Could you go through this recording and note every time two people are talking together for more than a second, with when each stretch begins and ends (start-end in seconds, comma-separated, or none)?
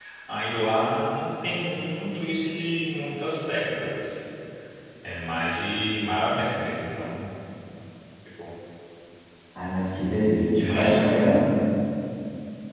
none